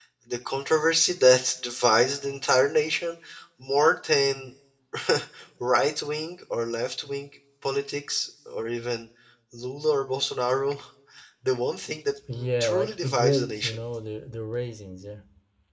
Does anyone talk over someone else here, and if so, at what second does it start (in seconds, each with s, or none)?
12.3 s